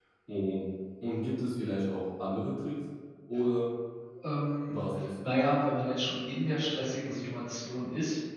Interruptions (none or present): none